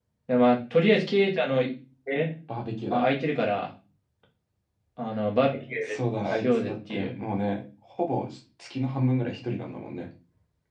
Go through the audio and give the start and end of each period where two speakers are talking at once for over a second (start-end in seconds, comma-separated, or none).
5.8-7.1